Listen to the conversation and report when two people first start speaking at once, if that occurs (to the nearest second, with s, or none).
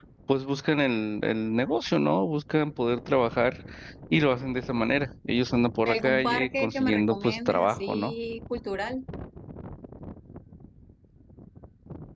6 s